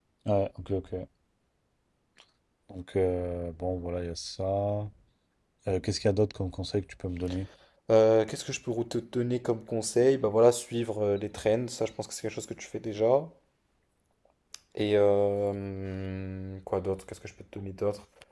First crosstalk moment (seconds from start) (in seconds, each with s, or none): none